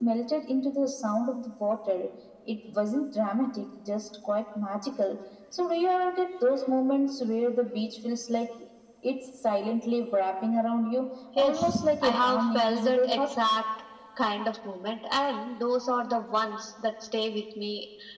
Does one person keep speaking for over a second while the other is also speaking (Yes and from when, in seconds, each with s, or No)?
Yes, from 11.4 s